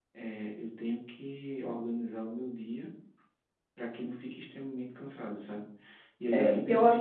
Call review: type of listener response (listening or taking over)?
listening